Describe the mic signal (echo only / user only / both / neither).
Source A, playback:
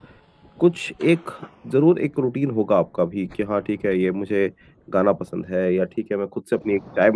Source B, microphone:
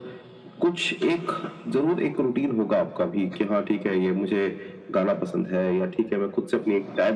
echo only